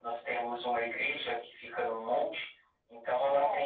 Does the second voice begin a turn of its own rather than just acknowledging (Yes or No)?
No